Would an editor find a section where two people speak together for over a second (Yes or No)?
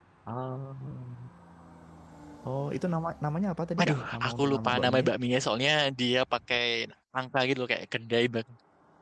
Yes